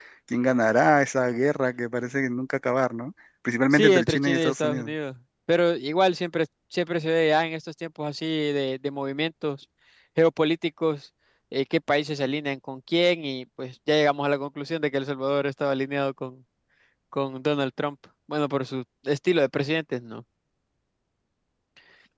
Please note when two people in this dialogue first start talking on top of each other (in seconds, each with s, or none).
3.7 s